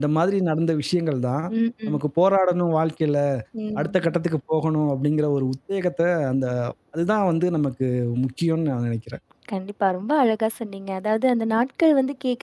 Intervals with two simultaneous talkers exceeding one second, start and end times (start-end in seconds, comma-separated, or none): none